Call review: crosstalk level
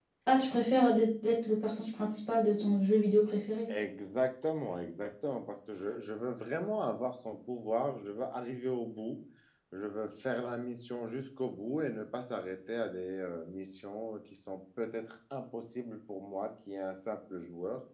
none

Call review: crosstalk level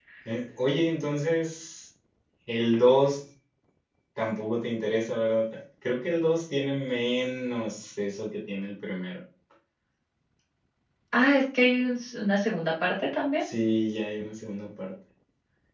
none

